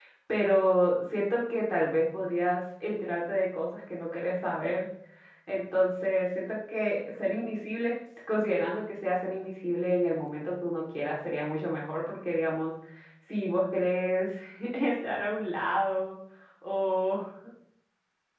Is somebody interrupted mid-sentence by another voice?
No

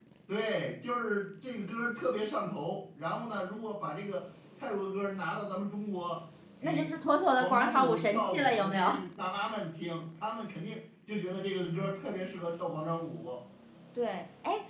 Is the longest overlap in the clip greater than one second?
Yes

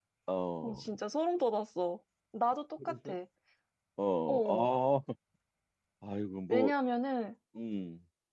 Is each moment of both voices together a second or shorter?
Yes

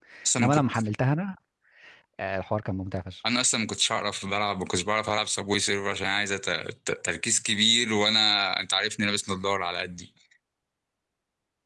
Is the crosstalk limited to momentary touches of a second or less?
Yes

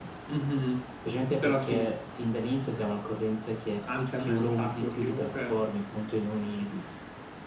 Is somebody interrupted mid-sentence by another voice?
Yes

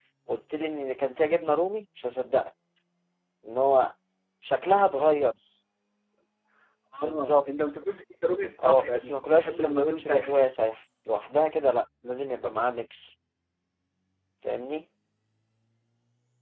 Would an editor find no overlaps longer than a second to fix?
No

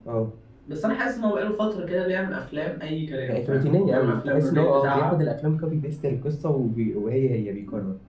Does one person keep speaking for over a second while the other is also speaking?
Yes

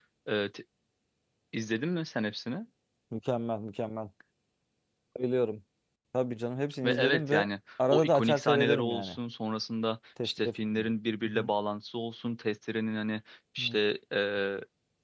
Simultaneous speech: Yes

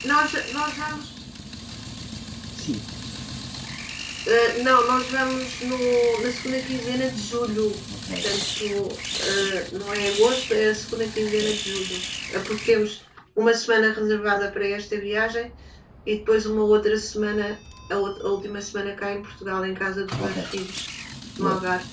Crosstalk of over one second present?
No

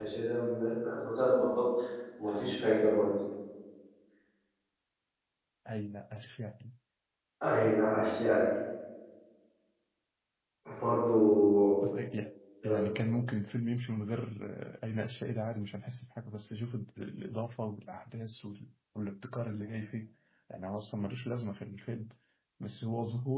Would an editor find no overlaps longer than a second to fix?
Yes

